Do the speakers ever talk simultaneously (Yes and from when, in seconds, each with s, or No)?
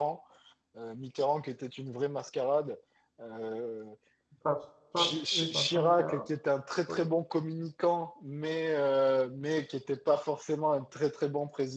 Yes, from 5.0 s